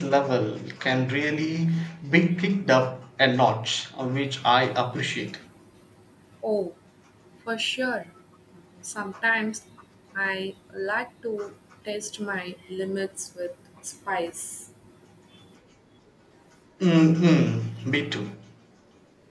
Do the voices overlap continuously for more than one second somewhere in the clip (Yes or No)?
No